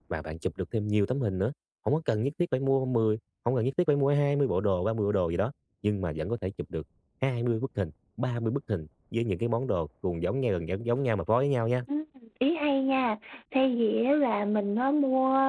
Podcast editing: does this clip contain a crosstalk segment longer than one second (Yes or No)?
No